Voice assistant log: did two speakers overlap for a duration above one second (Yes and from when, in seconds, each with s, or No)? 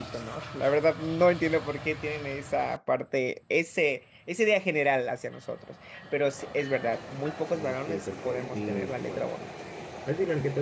Yes, from 7.5 s